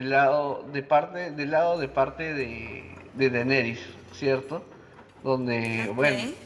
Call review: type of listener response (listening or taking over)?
listening